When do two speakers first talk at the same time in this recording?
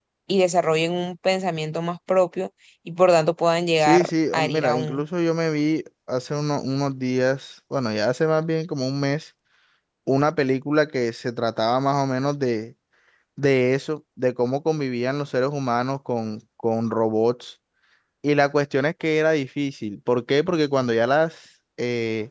4 s

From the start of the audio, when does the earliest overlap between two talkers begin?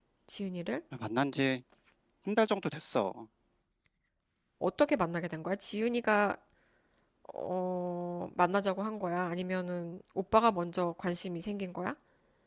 none

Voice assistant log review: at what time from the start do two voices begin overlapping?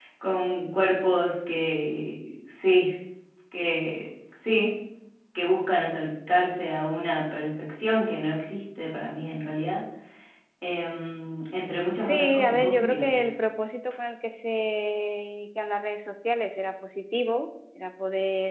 12 s

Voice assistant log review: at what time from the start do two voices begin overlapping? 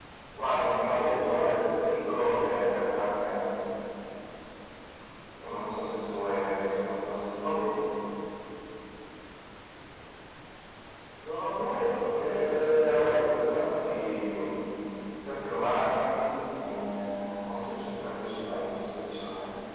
1 s

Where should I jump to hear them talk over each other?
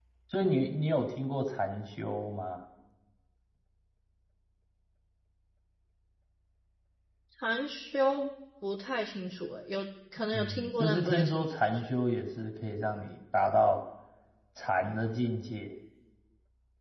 10 s

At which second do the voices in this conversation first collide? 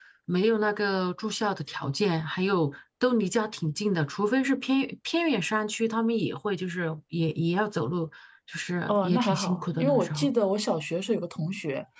9 s

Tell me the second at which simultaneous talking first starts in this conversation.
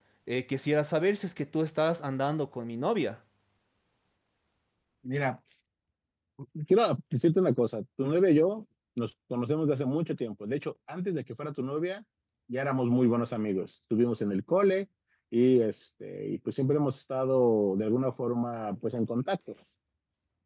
none

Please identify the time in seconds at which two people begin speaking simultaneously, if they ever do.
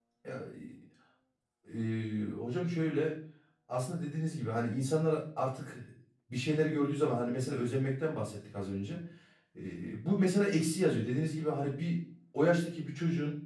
none

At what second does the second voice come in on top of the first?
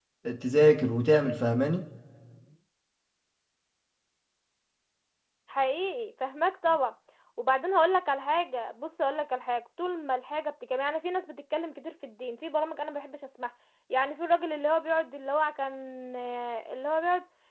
none

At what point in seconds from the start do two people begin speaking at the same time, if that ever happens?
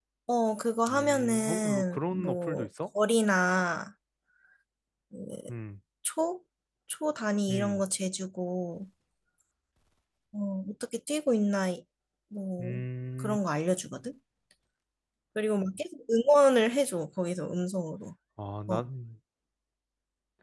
1 s

